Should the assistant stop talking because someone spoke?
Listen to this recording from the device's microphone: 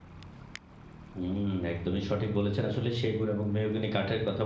Yes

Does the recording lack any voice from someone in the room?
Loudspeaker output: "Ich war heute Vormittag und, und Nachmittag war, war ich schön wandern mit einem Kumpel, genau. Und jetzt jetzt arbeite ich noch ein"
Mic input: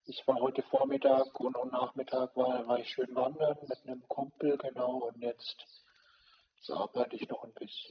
Yes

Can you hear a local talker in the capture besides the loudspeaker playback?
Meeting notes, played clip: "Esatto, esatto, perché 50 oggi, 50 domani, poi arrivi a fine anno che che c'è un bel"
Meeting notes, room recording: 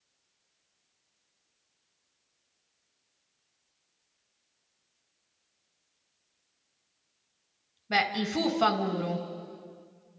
Yes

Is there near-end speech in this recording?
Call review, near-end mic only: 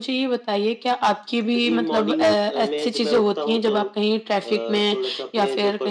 No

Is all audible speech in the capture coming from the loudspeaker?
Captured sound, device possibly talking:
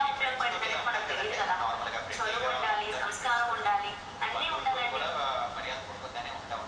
Yes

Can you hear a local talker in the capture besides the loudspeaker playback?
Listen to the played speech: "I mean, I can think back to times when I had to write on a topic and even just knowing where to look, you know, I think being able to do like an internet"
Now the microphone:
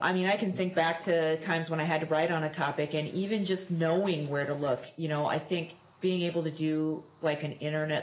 No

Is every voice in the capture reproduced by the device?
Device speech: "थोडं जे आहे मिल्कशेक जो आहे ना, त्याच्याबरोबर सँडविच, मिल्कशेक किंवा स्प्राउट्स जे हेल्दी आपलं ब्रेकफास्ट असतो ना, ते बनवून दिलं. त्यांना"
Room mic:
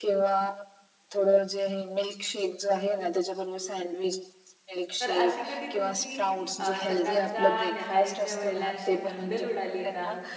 No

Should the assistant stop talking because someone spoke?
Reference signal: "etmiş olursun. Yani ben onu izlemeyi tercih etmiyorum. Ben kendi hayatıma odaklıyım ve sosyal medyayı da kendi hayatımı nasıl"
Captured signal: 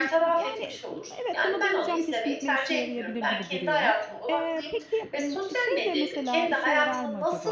Yes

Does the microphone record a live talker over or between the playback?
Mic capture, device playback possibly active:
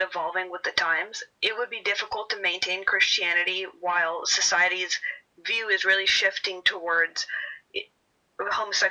No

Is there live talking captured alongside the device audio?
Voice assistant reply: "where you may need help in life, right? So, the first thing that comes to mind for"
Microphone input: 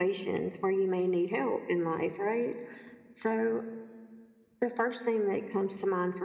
No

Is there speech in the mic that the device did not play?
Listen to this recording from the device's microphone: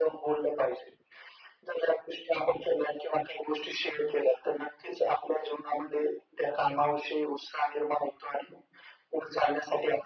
No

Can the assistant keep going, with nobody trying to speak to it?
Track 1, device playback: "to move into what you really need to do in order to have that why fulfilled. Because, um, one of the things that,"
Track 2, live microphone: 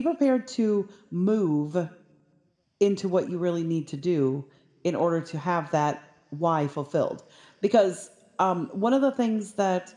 Yes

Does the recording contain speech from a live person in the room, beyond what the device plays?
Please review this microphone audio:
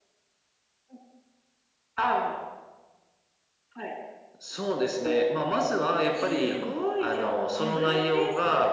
Yes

